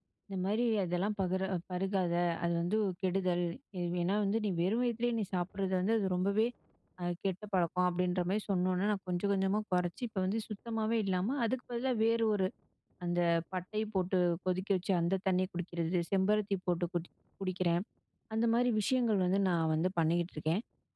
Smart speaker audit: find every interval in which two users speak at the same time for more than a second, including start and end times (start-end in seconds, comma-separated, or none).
none